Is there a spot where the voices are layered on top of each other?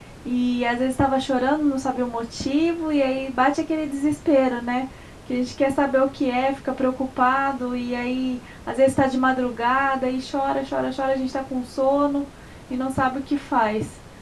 No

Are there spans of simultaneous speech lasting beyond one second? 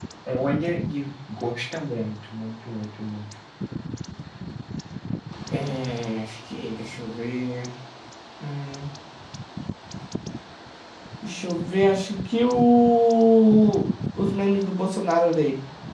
No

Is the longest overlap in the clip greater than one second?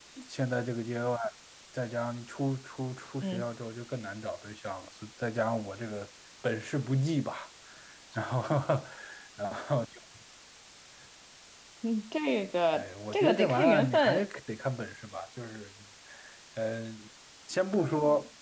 Yes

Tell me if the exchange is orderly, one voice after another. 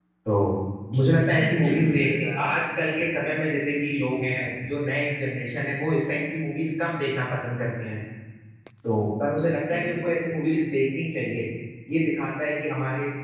No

